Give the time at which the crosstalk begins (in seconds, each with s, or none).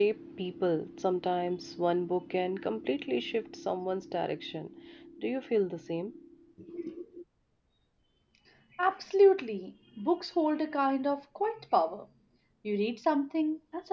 none